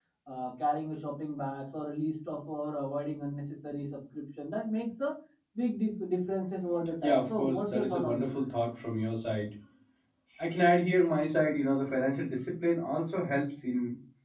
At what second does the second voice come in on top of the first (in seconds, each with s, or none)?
7.0 s